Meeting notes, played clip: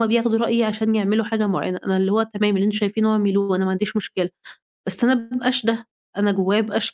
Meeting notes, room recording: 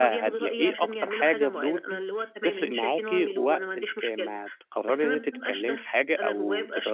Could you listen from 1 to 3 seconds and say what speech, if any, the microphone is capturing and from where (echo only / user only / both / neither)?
both